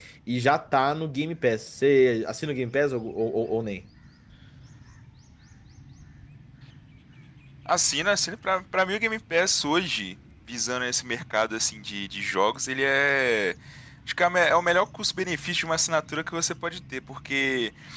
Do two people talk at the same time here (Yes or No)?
No